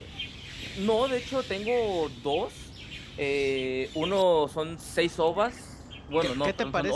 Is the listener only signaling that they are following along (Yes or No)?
No